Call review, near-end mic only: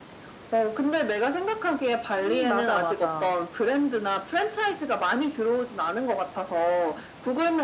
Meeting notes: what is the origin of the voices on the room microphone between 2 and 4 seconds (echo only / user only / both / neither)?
both